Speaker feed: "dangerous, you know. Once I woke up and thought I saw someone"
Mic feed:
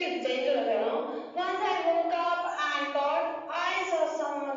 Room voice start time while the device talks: none

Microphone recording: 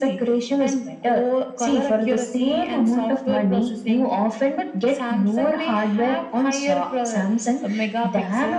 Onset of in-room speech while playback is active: none

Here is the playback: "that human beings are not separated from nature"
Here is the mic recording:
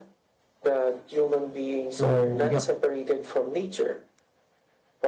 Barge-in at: 1.9 s

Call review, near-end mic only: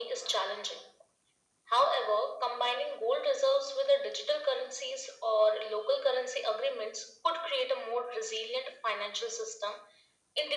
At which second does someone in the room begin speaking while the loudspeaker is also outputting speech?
none

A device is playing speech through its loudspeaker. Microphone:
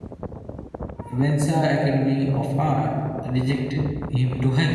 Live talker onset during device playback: 1.1 s

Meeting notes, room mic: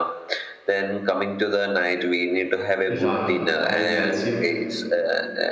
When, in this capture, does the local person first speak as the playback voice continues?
2.9 s

